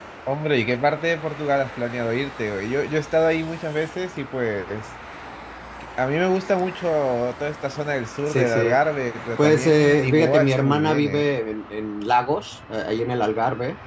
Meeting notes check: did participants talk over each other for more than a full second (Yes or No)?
Yes